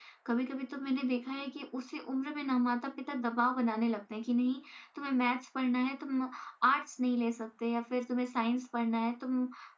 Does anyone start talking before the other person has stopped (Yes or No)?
No